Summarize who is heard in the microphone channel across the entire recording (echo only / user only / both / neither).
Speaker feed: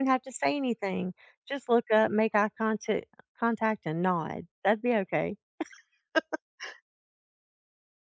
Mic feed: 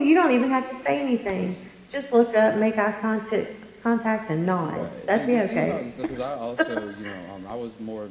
both